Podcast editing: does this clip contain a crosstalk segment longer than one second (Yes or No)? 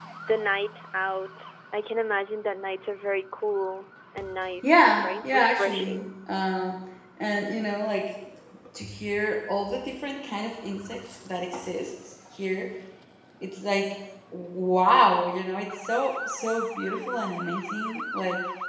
Yes